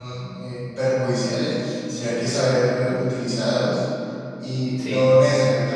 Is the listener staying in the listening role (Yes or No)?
Yes